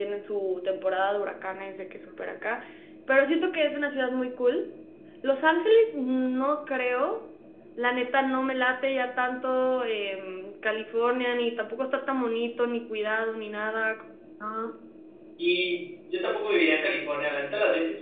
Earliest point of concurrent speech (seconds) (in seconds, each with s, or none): none